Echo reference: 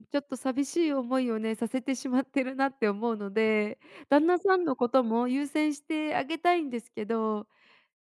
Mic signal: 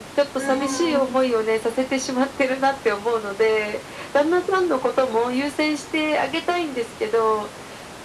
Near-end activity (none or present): present